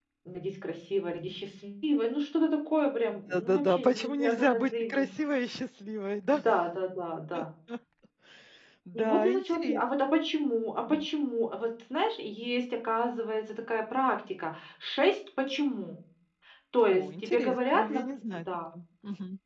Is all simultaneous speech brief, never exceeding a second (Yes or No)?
No